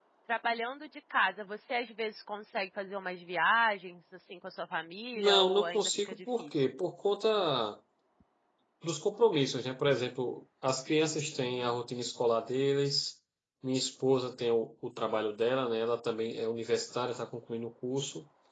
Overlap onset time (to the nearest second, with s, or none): 5 s